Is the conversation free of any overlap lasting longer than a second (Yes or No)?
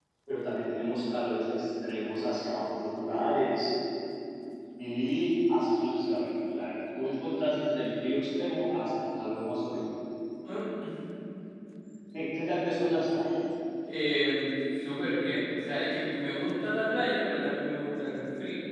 Yes